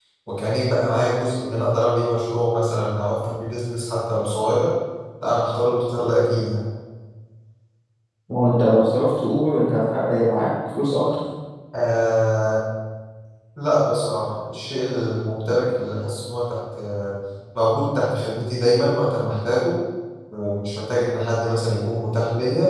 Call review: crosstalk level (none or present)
none